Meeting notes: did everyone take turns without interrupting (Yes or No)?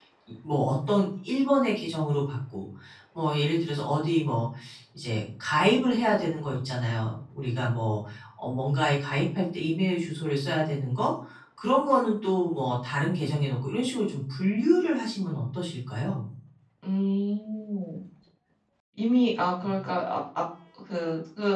Yes